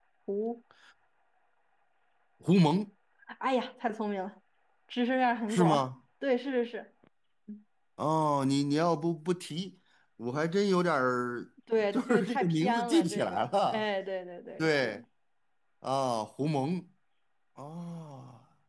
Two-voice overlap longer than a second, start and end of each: 11.9-13.8

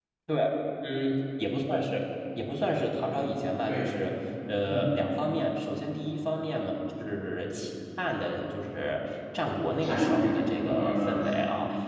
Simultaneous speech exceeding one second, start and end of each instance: 9.8-11.2

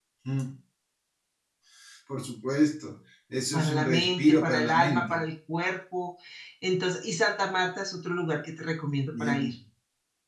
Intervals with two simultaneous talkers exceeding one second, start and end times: 3.5-5.2

